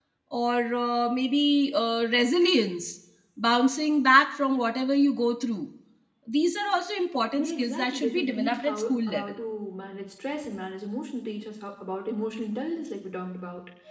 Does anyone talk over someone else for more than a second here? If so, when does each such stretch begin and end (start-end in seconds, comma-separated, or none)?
7.4-9.3